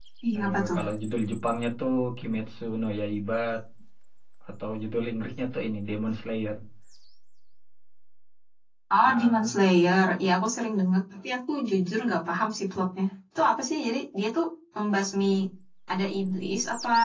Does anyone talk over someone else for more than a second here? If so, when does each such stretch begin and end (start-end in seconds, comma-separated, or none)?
none